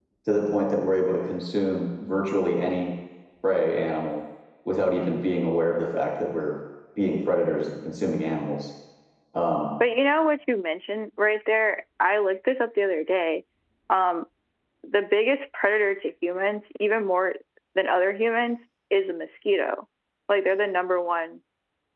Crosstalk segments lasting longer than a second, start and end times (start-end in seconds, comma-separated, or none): none